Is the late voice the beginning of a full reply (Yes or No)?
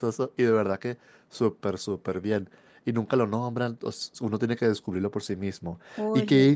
No